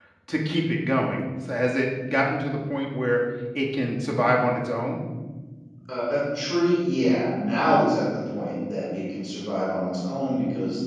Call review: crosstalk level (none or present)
none